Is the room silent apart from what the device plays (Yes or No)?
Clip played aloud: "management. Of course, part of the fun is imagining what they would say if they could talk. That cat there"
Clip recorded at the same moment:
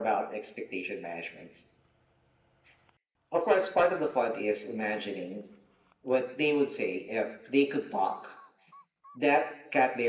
Yes